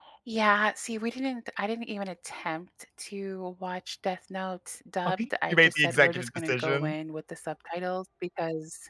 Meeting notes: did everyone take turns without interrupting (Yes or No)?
No